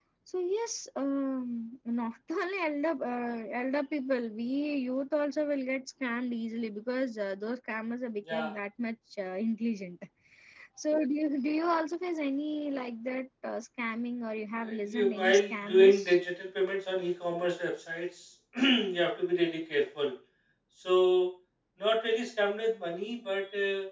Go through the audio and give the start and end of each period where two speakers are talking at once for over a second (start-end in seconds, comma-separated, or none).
14.6-16.0